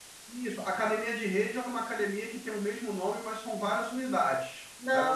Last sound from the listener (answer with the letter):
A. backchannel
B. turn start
A